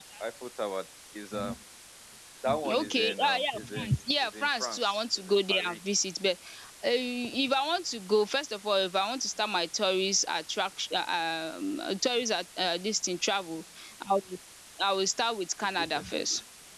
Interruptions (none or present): present